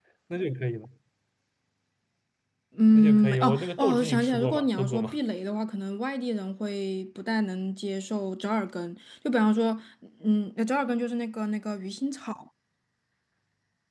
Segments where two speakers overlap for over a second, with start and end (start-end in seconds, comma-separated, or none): 2.9-5.2